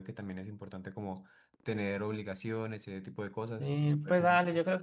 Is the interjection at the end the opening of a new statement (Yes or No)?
Yes